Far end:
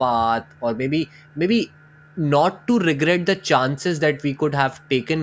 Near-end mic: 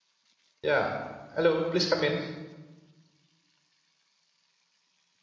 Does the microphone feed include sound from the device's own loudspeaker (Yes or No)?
No